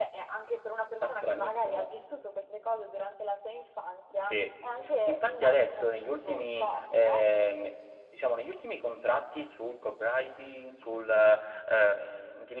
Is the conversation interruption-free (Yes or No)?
No